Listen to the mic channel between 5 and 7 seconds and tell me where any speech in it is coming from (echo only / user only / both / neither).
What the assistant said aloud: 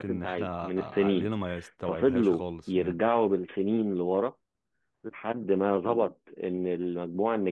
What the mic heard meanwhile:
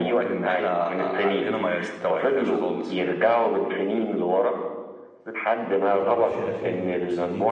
both